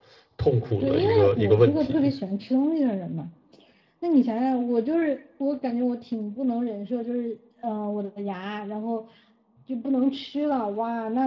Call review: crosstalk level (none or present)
present